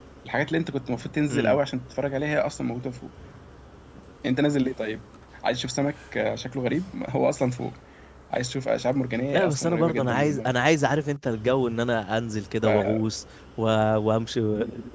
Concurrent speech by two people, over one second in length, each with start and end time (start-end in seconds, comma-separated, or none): 9.3-10.5